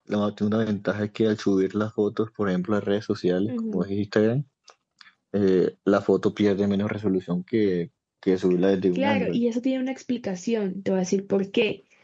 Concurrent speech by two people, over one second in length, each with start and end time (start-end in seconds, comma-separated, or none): none